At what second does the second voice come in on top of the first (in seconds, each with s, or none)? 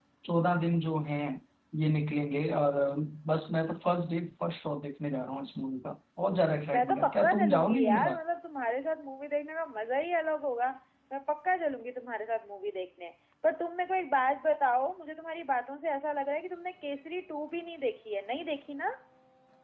6.7 s